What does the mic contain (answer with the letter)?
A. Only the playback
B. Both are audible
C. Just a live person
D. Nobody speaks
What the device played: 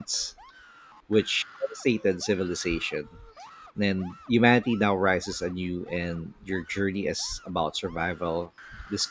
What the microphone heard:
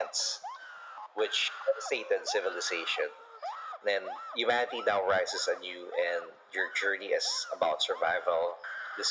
A